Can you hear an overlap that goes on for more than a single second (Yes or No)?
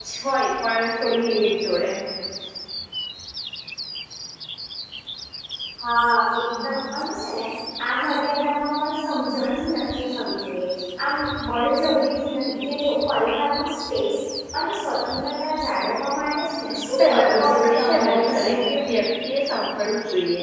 Yes